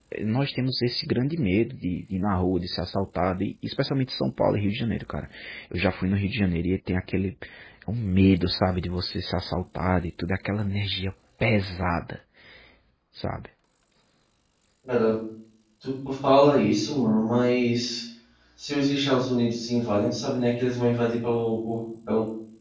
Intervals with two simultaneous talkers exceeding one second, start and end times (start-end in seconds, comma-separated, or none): none